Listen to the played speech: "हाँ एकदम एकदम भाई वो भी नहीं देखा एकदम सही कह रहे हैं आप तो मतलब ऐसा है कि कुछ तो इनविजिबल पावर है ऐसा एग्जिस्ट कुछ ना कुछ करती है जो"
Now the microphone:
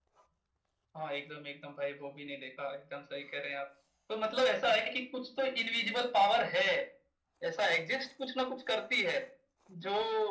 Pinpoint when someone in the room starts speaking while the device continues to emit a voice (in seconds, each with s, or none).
none